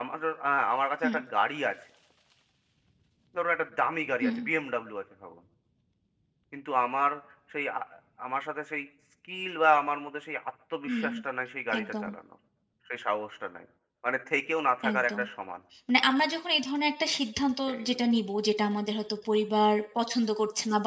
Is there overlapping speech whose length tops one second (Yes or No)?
No